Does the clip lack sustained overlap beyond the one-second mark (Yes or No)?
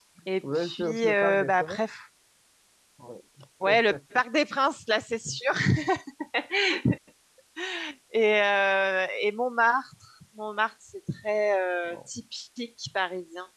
No